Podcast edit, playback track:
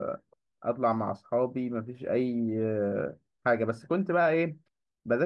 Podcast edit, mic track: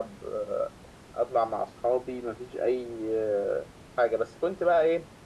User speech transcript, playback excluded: none

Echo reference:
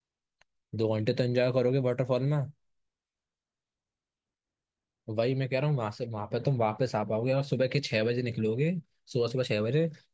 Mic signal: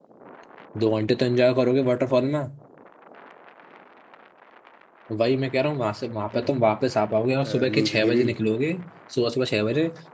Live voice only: अ, नीलगिरी

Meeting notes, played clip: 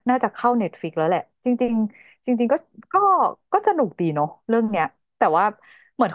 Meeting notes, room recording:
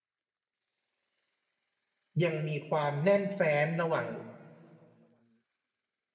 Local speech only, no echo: ยังมีความแน่นแฟ้นระหว่าง

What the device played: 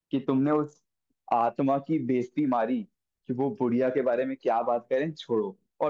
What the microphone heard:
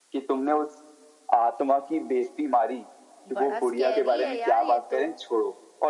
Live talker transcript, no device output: बड़ा स्कैरी है यार ये तो

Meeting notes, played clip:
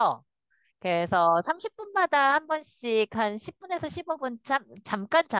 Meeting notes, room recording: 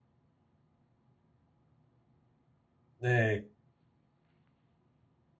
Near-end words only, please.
네,

